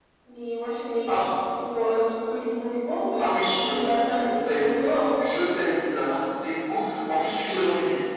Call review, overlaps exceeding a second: present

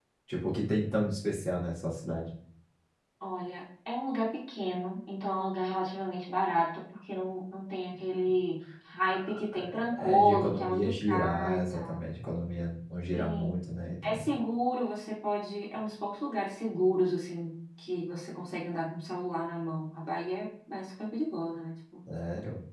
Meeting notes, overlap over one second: present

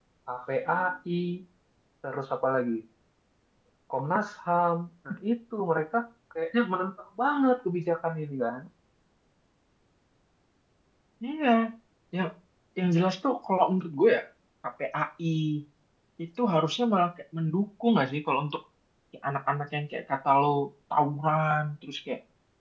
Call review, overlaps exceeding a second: none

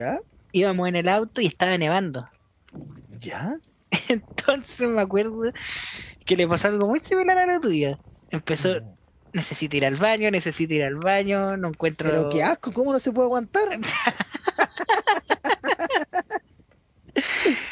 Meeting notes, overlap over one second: none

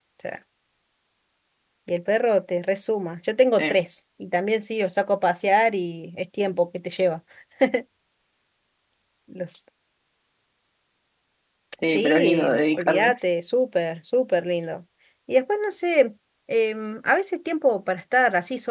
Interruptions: present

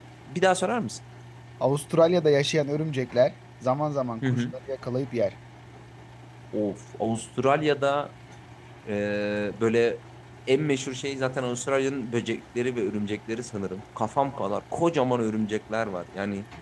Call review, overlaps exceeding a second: none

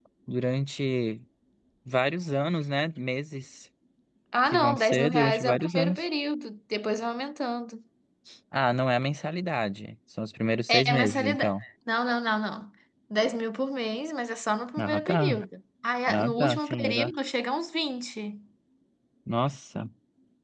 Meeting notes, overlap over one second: present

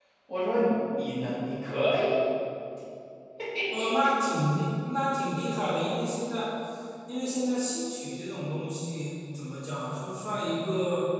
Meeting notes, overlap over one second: none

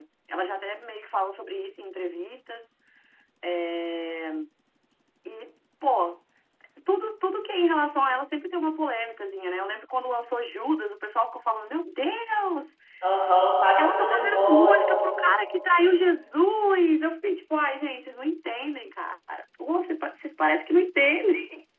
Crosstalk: present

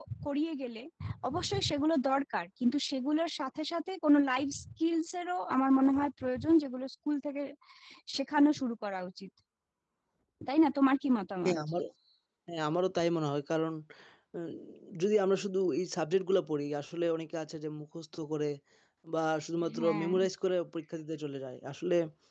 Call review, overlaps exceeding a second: none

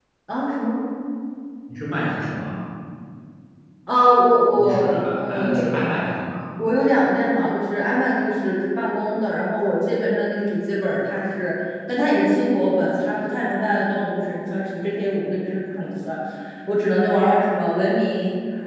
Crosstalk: present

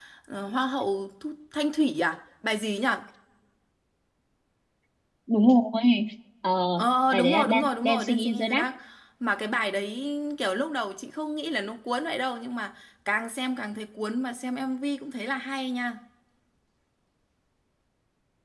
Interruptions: present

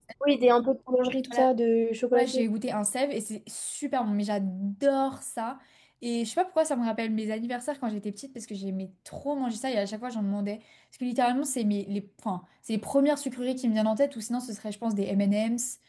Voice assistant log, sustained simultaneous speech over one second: none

